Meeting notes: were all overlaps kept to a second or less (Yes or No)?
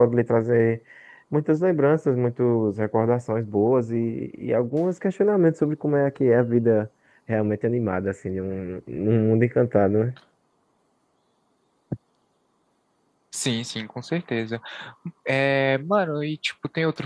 Yes